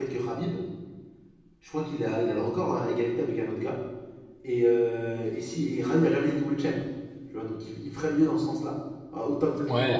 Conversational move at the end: taking over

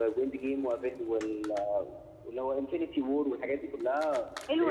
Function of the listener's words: taking over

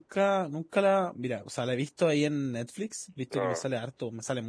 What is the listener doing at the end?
listening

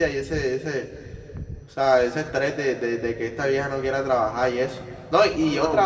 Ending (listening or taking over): listening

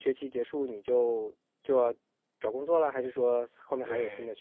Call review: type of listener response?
taking over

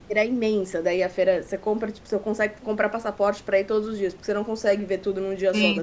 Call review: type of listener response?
taking over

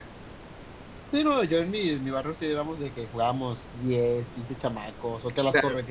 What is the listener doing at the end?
listening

